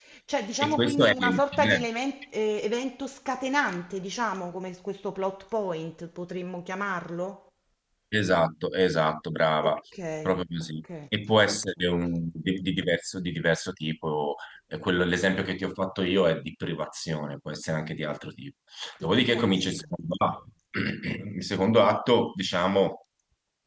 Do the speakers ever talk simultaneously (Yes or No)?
Yes